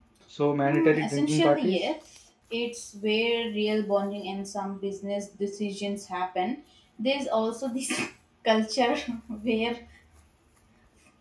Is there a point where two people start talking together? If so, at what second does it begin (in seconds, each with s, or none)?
0.6 s